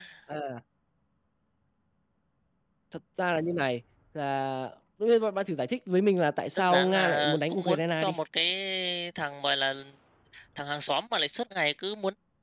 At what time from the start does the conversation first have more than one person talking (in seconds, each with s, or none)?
6.6 s